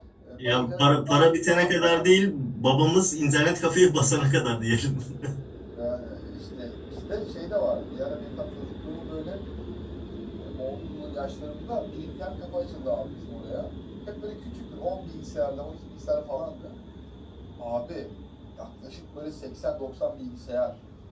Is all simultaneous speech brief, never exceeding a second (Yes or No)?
No